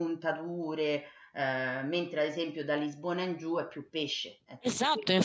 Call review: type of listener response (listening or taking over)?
taking over